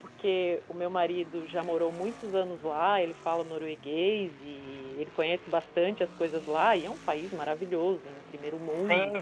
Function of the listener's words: taking over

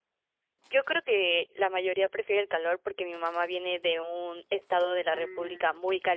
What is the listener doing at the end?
listening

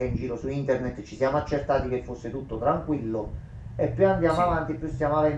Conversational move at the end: listening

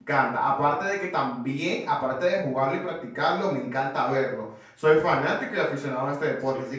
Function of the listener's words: listening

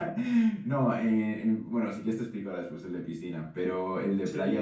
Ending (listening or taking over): listening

